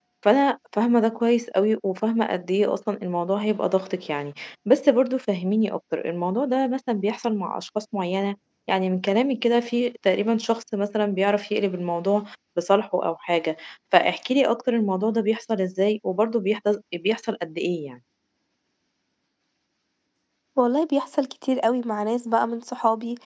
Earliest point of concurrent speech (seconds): none

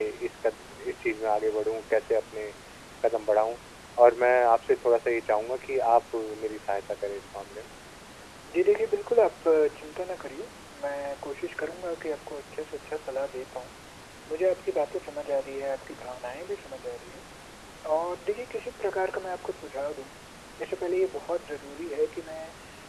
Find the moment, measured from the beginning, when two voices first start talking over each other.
none

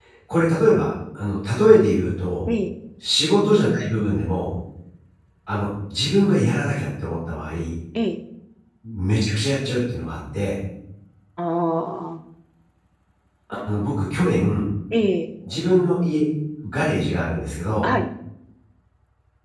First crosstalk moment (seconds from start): none

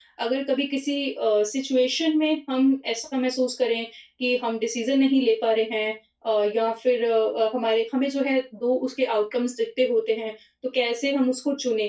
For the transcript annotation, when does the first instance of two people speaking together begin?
none

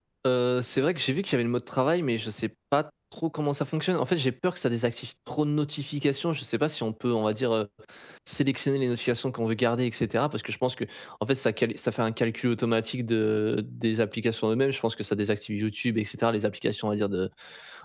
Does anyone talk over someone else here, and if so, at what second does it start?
none

